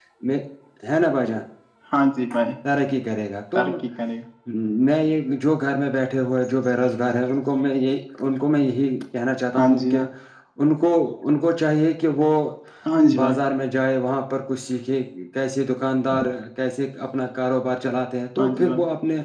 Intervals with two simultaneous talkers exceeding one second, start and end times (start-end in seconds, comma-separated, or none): none